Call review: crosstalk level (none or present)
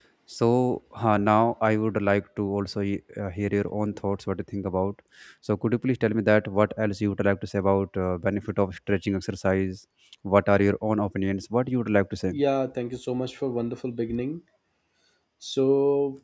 none